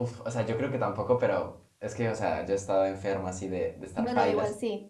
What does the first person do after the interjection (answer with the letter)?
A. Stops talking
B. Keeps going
A